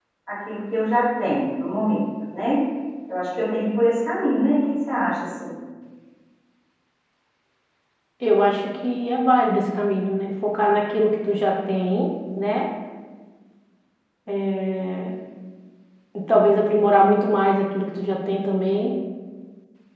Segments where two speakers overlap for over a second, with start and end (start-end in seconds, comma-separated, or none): none